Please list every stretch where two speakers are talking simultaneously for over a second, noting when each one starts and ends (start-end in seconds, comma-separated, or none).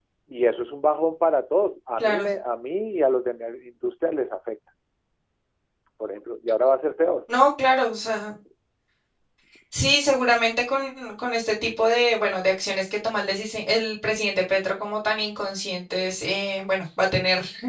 none